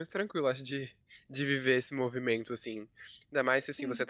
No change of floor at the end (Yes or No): Yes